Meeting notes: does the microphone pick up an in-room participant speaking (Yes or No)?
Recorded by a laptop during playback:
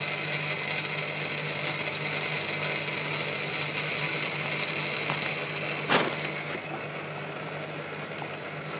No